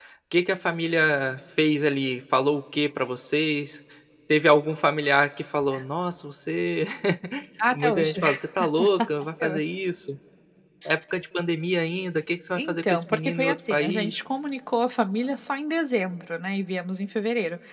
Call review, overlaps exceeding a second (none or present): present